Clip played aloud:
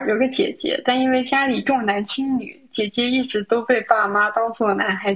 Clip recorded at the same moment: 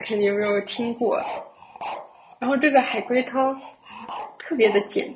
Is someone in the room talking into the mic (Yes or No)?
Yes